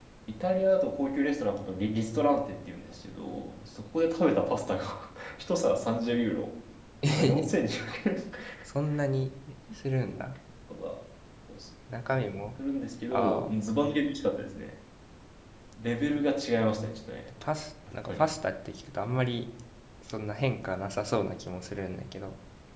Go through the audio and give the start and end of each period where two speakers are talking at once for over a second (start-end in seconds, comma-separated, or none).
none